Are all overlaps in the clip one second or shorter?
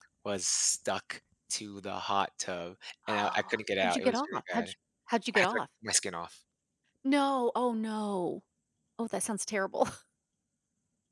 No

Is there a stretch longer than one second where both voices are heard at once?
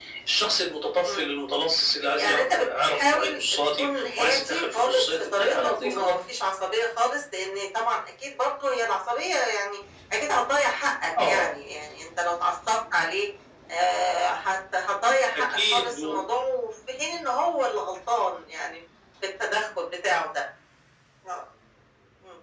Yes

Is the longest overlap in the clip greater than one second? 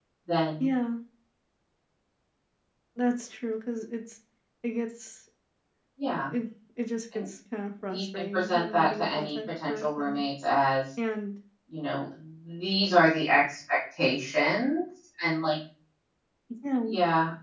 Yes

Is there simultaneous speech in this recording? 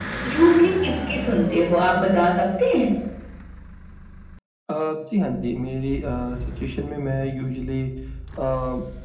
No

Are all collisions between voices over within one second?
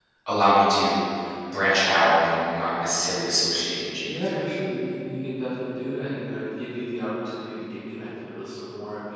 Yes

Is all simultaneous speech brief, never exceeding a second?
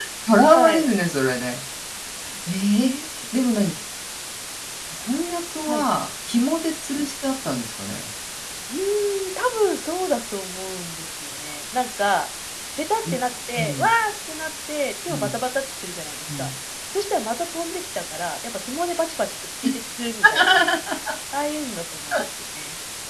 Yes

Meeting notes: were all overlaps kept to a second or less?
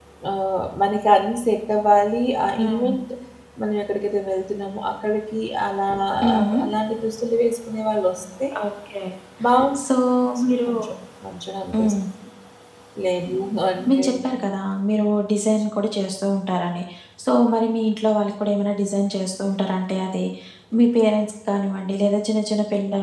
Yes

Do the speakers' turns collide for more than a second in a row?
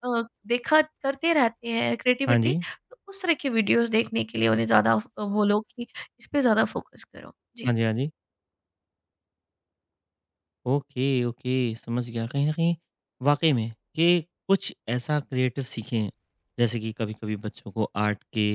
No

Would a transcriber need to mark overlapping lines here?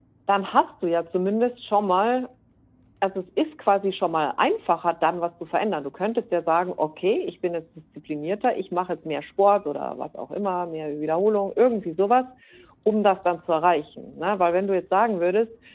No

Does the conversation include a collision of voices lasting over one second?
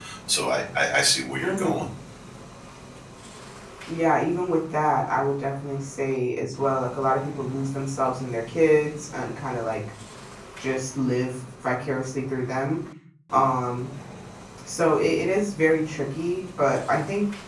No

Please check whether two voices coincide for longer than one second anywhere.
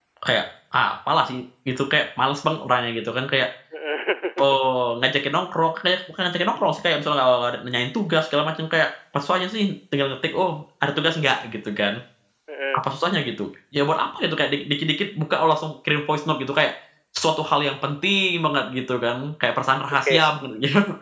No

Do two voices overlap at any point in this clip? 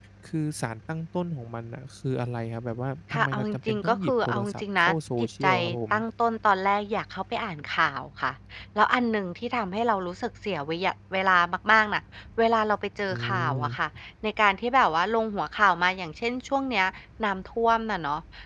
Yes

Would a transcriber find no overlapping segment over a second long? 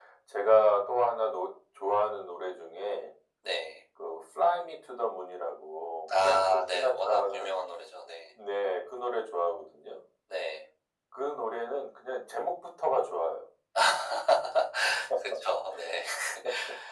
No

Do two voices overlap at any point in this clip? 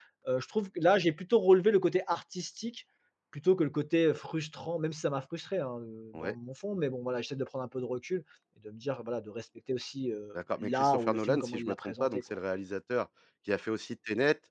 Yes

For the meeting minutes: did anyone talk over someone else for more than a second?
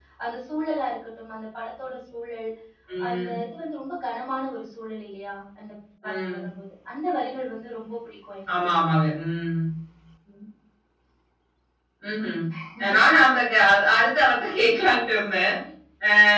No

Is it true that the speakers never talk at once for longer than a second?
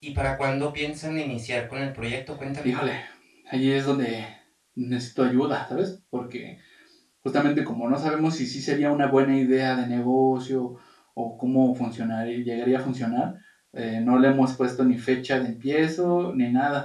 Yes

